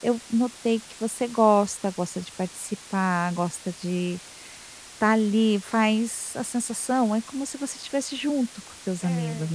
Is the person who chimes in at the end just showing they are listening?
No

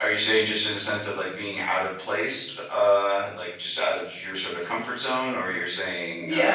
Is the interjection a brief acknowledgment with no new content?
No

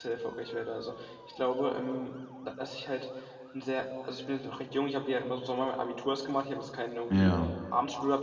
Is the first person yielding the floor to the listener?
No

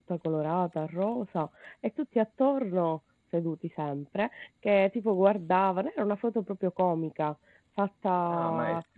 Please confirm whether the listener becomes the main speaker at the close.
Yes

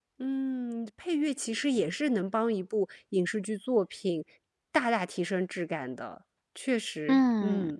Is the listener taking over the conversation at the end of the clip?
Yes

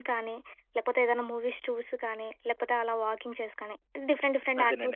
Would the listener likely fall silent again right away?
No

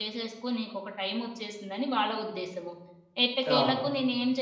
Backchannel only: Yes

